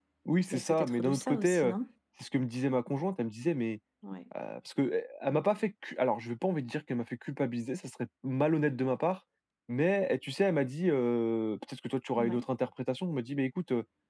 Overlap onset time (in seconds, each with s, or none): 0.5 s